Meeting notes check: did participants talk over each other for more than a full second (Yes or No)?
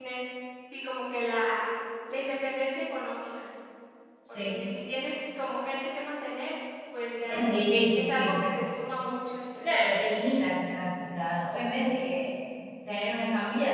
No